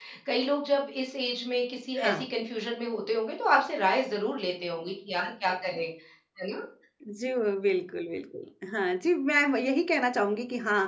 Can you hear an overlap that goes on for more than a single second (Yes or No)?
No